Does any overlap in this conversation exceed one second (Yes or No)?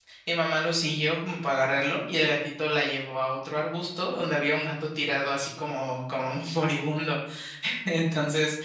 No